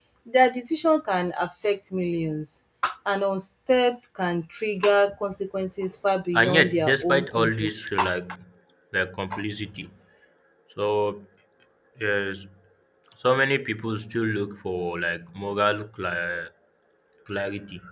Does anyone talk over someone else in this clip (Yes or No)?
Yes